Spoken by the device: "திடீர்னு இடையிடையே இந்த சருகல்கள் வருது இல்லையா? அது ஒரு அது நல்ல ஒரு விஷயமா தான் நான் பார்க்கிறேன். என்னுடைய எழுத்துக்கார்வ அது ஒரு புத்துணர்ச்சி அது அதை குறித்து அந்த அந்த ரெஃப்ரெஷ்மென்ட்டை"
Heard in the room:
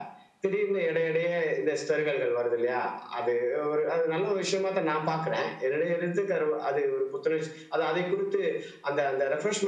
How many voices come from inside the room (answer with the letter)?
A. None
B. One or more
A